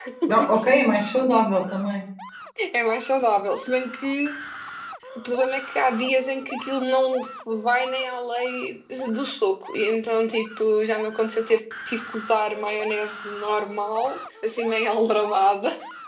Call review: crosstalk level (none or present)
none